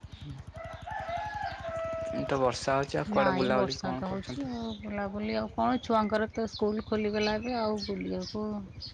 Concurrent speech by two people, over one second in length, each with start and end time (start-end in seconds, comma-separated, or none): 3.1-4.5